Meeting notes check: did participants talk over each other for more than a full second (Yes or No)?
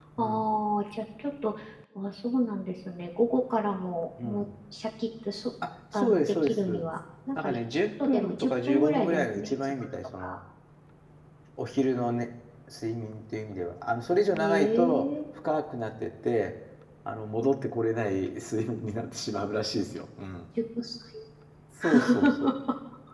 Yes